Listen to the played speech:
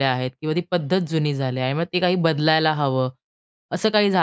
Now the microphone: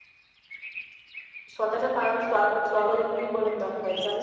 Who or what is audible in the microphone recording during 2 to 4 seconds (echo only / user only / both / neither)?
user only